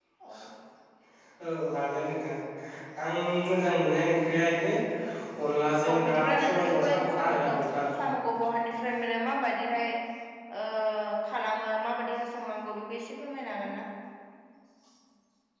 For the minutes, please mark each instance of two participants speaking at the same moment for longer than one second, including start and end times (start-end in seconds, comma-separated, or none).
5.9-7.5